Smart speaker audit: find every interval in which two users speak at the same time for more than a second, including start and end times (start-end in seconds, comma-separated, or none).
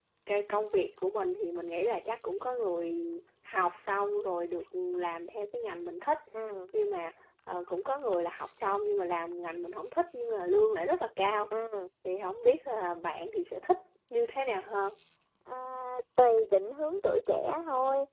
none